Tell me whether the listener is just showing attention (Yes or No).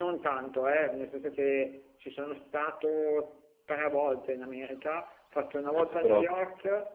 Yes